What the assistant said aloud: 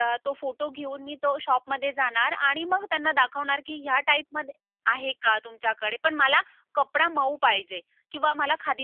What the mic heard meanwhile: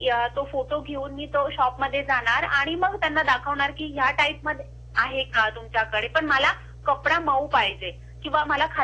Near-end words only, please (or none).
none